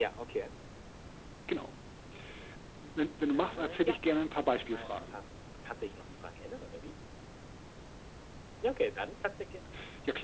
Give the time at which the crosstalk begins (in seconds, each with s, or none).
3.3 s